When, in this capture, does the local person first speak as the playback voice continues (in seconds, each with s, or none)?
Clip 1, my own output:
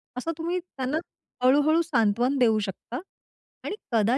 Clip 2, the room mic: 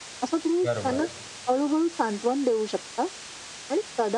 0.6 s